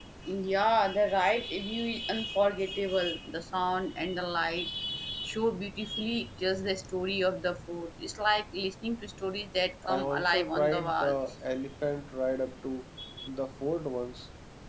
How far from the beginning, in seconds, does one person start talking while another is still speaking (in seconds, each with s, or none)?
9.9 s